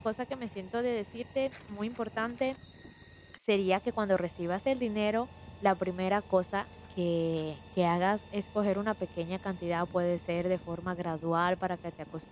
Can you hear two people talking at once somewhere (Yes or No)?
No